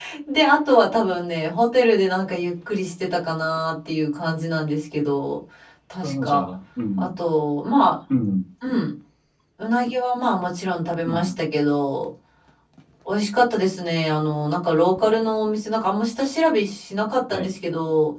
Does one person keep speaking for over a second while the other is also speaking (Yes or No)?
No